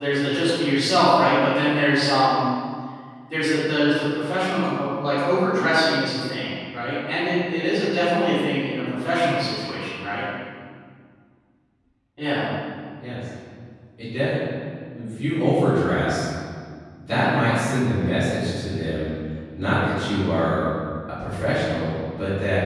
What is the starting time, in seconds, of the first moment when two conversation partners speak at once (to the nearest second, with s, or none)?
none